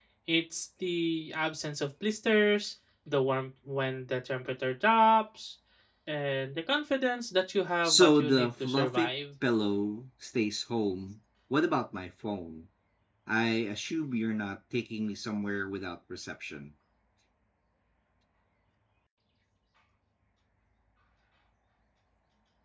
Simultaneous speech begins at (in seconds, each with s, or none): 7.8 s